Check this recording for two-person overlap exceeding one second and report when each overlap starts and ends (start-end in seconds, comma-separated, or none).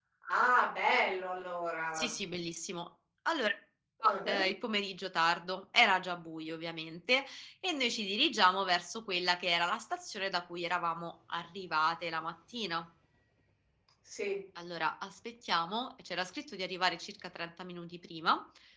none